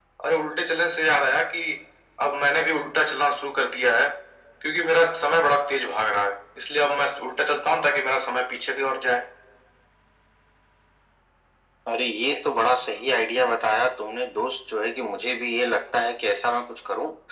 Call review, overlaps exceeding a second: none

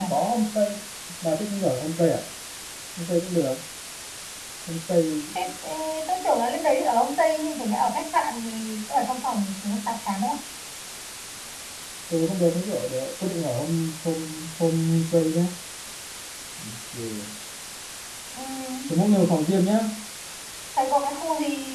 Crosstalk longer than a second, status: none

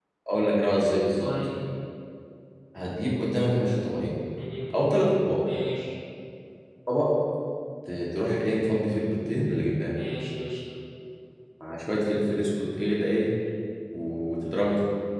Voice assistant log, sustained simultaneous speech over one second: none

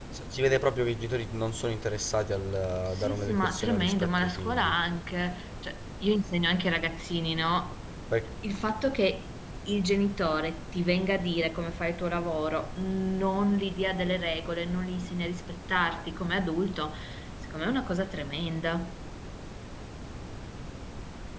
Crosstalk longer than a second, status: present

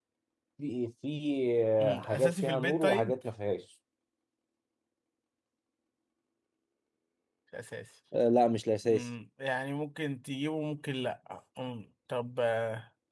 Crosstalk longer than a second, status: present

